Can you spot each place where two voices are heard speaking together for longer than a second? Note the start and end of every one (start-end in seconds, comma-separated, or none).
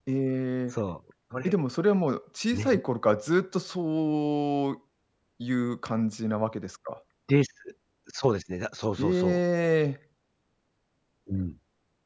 none